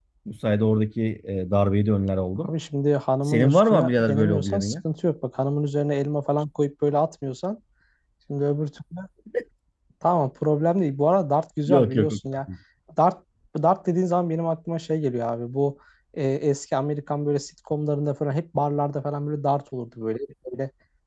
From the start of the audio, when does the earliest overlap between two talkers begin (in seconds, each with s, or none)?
3.3 s